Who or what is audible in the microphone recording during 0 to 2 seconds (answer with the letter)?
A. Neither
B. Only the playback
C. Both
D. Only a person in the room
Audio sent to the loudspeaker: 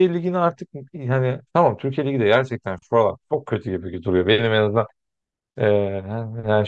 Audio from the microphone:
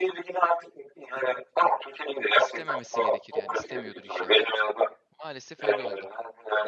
B